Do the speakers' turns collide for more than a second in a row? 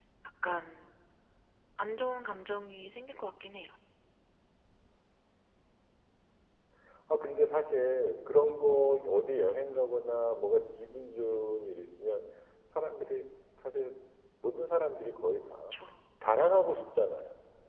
No

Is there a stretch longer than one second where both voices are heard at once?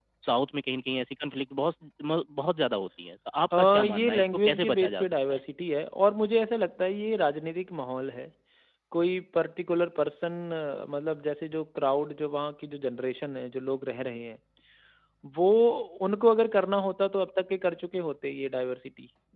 Yes, from 3.5 s

